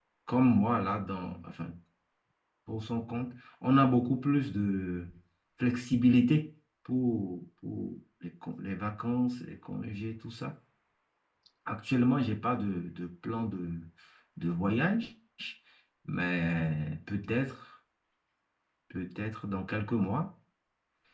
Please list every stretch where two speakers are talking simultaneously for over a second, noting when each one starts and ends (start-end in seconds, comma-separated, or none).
none